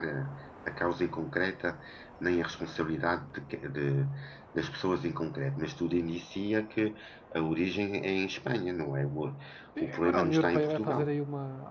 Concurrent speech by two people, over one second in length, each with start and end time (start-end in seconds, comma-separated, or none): 9.8-11.1